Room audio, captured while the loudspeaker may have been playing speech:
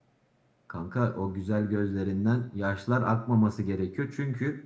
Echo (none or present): none